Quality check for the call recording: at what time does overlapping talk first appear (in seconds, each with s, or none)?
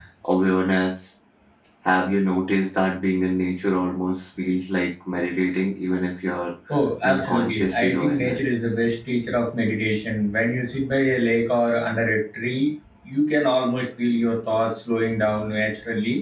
7.0 s